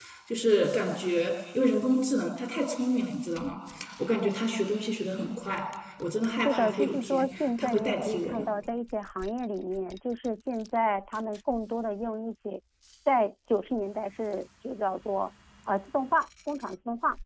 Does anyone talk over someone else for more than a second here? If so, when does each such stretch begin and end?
6.4-8.5

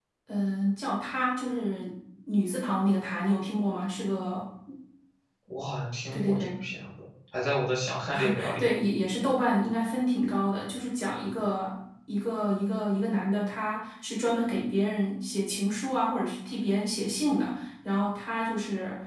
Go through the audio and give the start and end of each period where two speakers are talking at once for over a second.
none

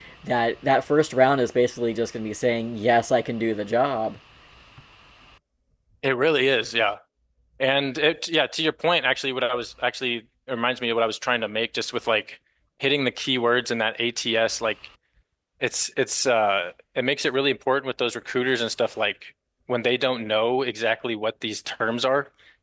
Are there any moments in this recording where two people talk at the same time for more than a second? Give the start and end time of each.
none

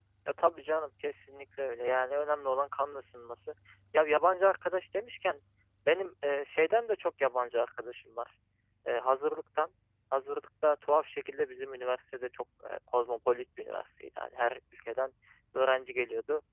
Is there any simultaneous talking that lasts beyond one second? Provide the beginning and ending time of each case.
none

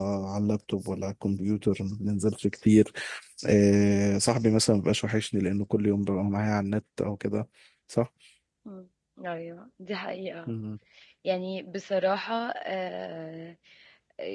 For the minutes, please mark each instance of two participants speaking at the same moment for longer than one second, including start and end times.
none

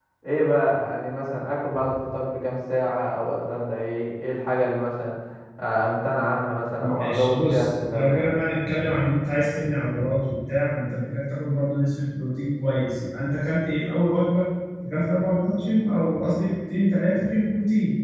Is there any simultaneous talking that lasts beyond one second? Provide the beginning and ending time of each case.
6.8-8.4

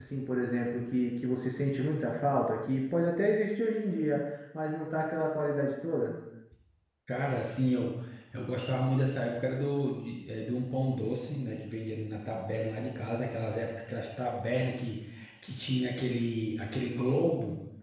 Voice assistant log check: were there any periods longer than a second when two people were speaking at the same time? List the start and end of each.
none

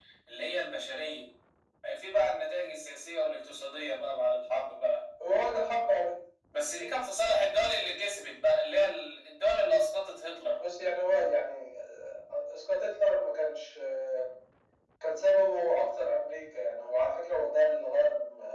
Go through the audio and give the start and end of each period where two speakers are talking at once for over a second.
none

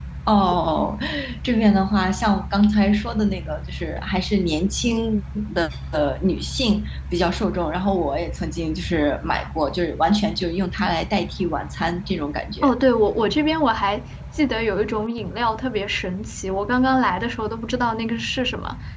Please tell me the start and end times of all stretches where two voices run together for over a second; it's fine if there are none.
none

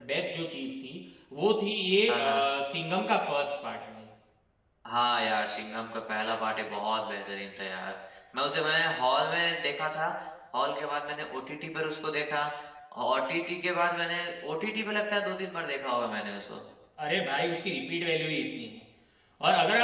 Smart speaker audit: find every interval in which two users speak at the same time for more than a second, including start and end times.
none

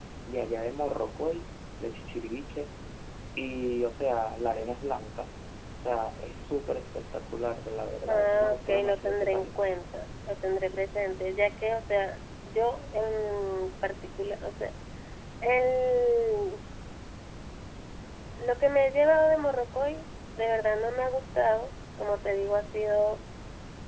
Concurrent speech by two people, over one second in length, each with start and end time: 8.1-9.5

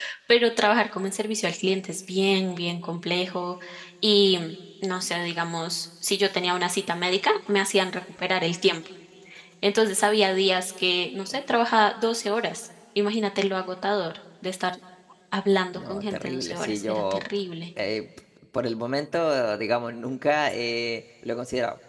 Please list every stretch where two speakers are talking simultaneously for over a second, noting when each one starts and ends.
15.8-17.2

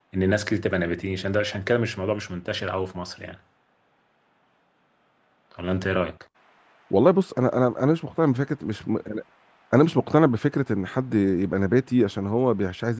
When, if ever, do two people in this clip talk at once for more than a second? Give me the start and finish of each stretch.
none

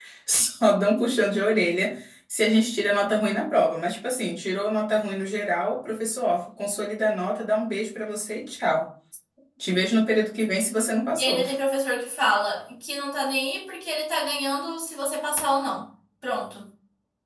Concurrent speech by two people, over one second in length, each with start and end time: none

